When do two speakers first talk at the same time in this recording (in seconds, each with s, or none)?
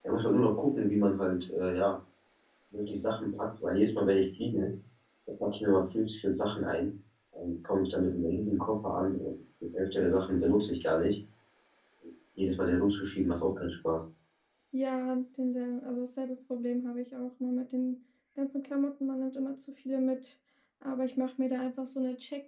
none